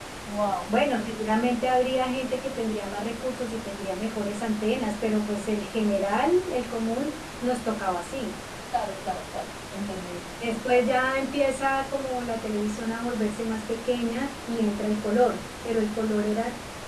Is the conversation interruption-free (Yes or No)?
Yes